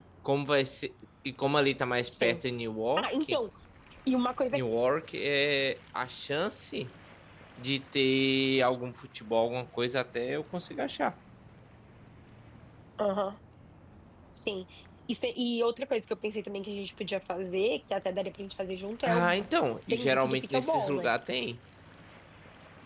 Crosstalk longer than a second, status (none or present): present